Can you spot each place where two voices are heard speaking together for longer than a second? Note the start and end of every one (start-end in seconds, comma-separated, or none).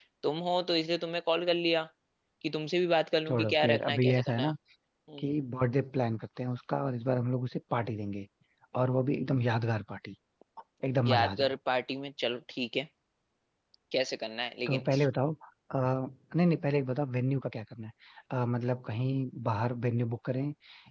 3.3-4.5